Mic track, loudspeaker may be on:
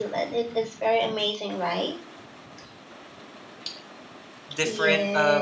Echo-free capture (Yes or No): No